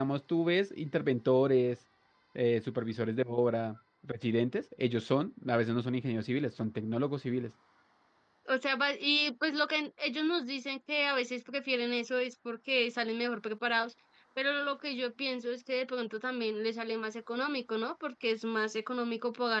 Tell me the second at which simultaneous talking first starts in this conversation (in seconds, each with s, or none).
none